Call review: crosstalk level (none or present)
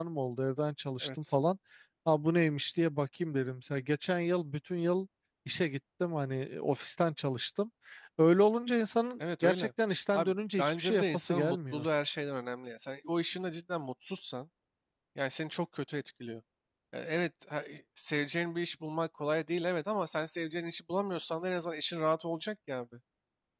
present